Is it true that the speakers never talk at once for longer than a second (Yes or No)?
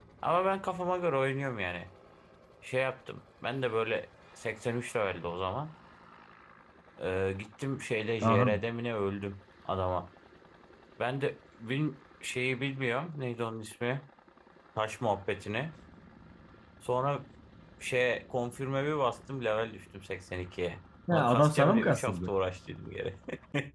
No